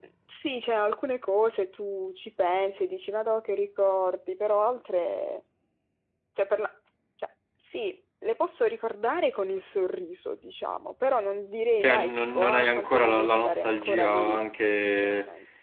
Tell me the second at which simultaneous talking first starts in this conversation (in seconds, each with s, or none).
11.8 s